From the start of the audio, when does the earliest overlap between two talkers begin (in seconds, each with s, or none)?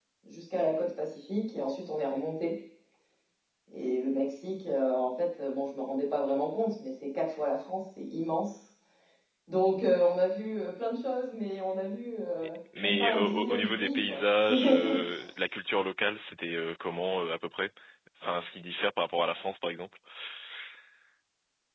12.7 s